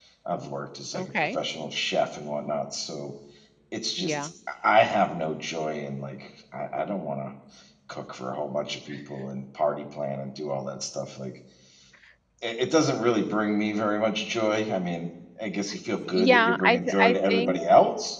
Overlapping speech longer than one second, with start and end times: 16.3-17.6

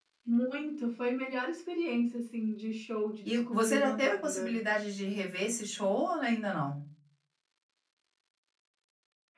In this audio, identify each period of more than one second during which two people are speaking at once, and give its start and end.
3.2-4.5

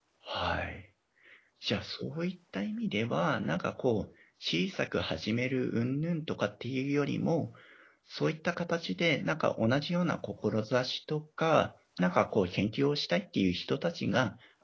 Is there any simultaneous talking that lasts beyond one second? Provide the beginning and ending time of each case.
none

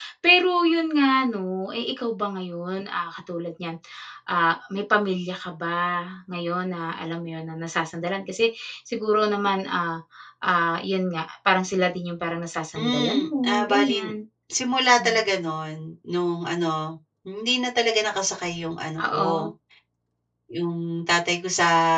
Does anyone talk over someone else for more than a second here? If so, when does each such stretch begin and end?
12.8-14.1

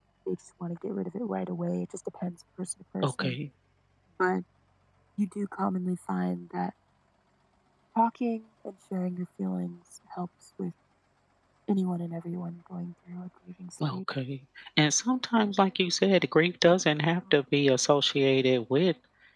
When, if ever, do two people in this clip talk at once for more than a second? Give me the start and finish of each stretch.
none

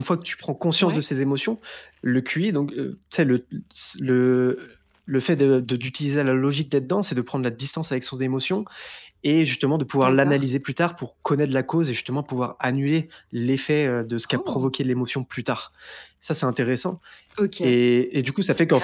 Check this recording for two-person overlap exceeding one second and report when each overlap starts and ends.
none

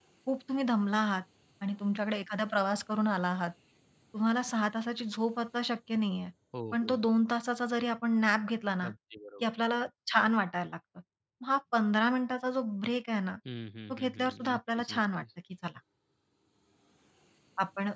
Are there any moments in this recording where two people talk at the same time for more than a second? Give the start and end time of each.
13.9-15.2

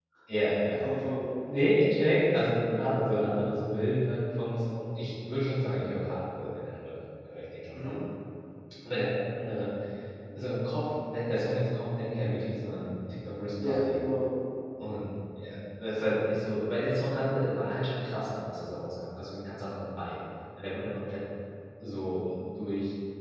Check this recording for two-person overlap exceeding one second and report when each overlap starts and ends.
none

